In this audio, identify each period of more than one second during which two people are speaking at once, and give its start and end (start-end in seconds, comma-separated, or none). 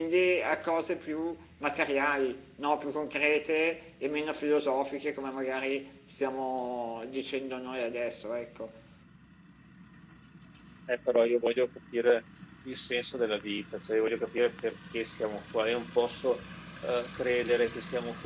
none